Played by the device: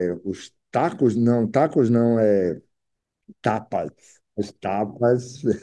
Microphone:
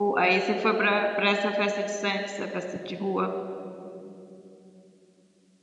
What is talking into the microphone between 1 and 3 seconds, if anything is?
user only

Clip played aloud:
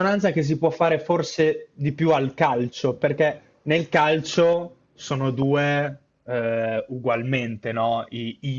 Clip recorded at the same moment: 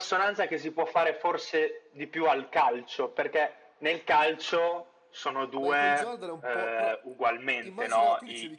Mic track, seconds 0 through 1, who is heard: echo only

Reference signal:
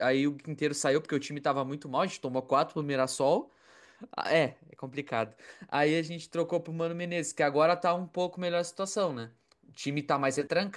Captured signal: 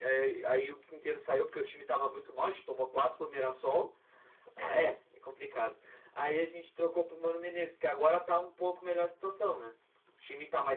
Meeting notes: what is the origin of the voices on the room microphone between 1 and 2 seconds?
echo only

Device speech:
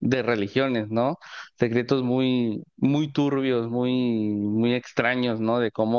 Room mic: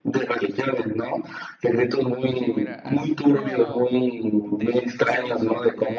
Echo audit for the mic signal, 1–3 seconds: both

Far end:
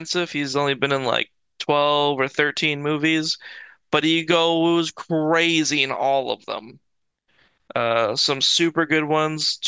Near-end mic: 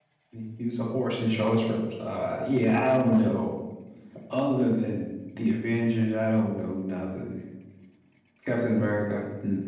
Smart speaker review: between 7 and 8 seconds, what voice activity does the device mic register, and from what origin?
user only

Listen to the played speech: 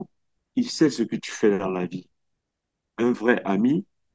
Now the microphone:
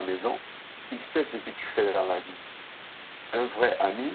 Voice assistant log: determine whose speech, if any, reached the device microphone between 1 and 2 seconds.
echo only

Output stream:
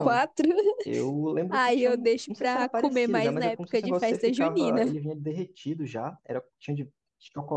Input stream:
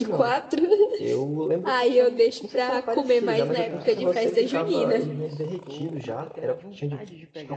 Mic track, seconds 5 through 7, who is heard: both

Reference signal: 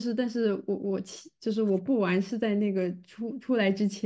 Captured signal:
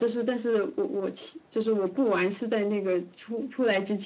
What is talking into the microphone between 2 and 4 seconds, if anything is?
echo only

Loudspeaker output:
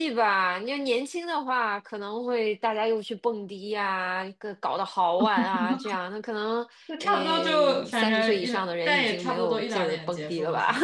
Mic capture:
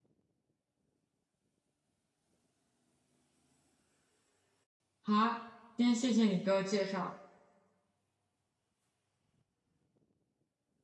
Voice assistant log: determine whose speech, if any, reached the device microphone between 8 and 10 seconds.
neither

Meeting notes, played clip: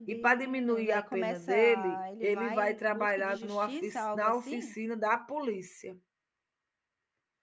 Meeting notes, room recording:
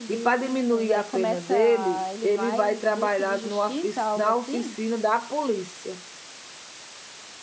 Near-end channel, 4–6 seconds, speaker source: echo only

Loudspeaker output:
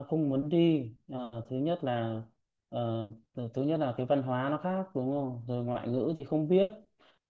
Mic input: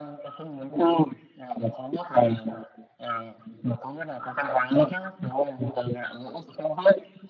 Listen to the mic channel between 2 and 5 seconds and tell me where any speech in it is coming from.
echo only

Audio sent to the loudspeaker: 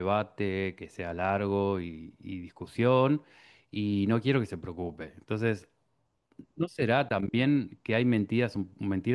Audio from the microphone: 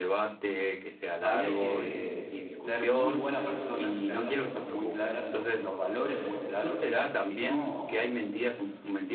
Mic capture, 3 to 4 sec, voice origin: both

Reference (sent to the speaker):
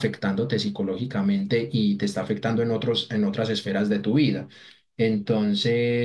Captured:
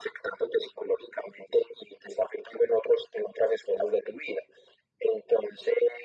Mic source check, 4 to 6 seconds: echo only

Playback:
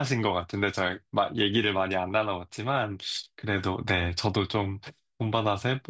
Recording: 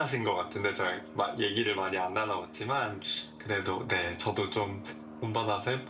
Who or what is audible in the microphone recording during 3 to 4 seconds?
echo only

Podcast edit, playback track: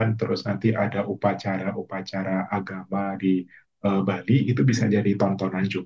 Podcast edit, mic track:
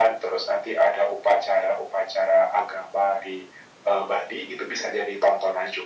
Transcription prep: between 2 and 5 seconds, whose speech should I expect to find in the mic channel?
echo only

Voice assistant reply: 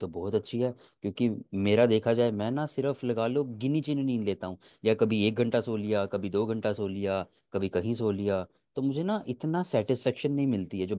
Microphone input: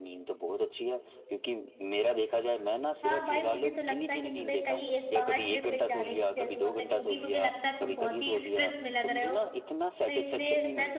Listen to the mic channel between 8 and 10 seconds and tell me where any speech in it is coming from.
both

